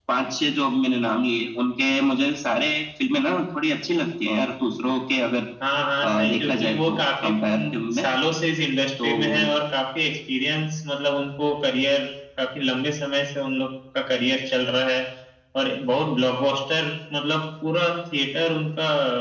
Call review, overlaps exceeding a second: present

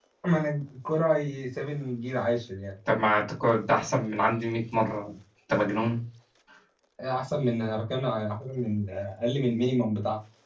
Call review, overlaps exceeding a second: none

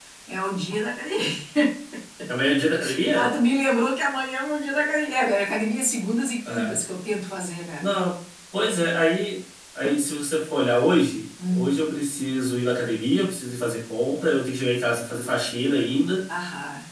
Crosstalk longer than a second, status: none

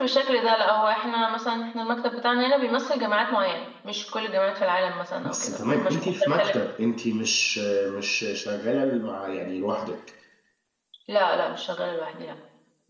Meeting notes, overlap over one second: present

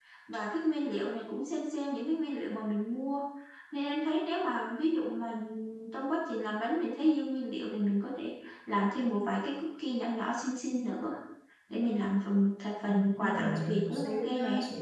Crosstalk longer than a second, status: present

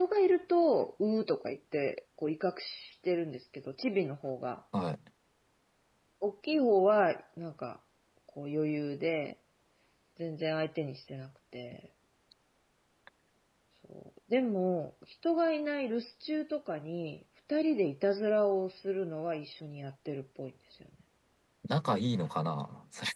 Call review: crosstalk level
none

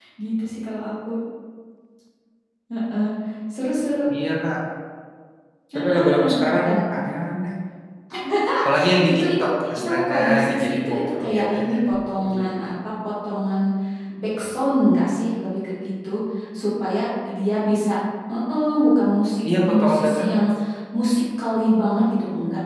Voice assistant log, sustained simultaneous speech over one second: present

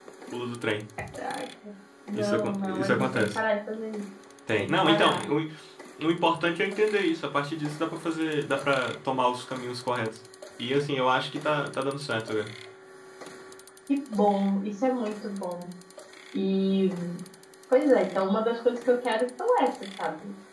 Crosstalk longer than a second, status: present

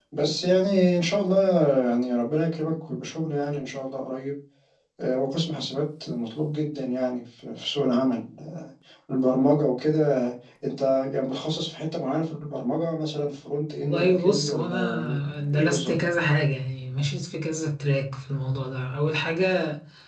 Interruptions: present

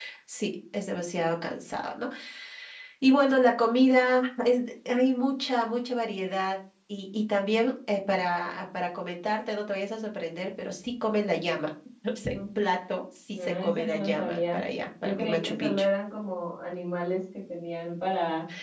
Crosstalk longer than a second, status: present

